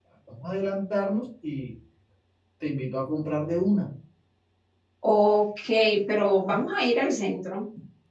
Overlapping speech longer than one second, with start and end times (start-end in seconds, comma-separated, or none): none